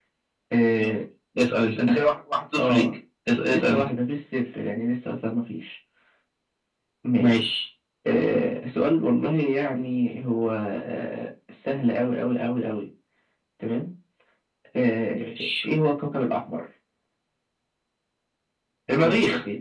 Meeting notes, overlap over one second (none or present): none